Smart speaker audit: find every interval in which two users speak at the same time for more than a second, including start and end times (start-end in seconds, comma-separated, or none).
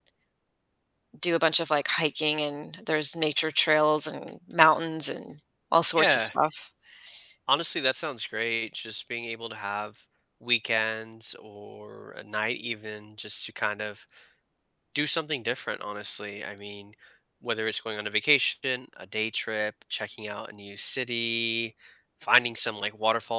none